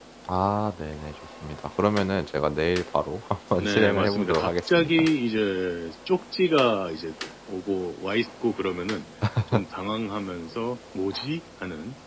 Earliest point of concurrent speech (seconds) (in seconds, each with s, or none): 3.5 s